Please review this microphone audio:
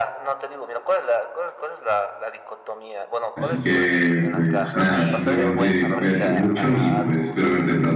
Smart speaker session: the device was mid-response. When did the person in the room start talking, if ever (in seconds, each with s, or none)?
3.4 s